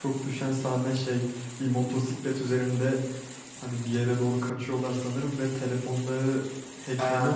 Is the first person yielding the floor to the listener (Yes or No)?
Yes